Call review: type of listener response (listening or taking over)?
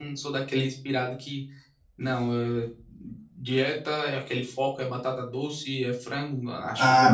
taking over